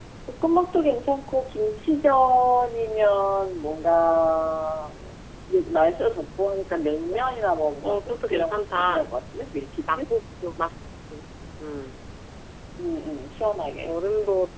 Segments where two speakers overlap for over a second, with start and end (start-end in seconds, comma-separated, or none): 7.8-9.1